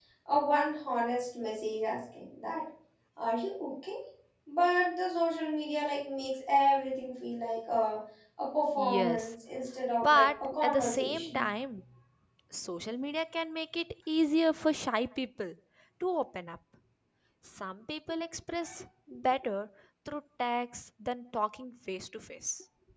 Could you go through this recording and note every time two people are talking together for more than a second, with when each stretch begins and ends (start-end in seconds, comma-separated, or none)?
10.0-11.4